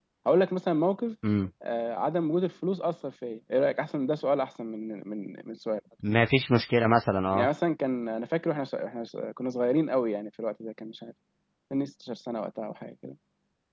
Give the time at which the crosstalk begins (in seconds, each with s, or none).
none